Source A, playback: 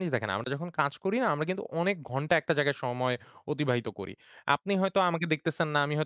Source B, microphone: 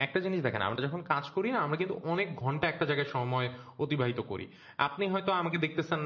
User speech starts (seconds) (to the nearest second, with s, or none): none